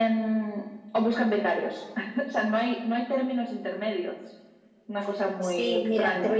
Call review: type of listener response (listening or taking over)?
taking over